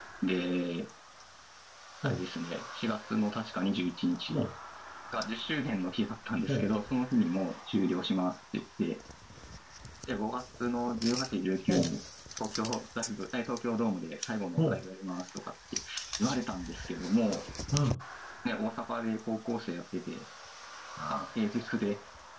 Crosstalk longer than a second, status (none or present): none